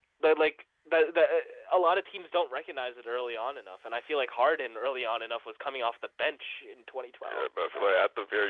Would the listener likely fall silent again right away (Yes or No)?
No